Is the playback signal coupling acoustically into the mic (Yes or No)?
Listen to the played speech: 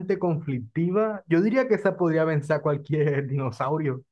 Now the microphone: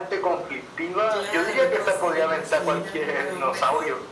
Yes